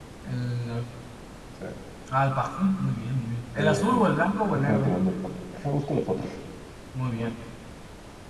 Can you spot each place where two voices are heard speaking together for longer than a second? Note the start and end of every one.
none

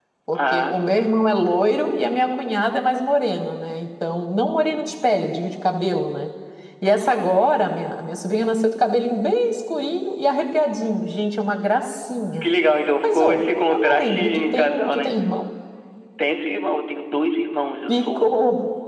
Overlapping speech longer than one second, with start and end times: 13.0-15.1

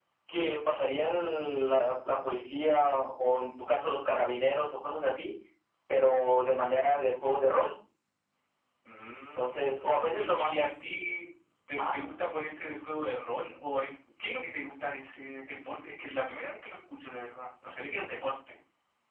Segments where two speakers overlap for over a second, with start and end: 9.4-10.6

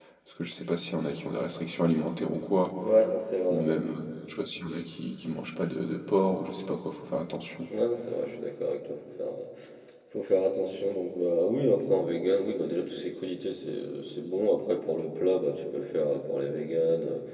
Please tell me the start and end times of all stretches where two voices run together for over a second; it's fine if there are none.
none

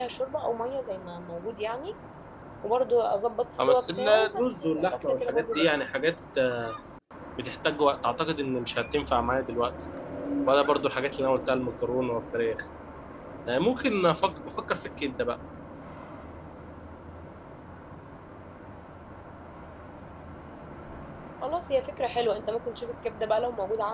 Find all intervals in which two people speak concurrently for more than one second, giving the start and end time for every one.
3.7-5.7

